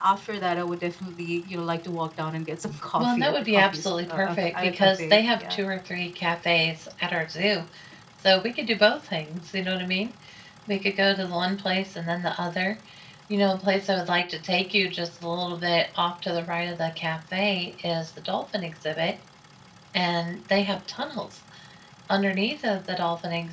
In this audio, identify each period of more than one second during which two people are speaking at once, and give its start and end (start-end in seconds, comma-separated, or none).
3.0-5.6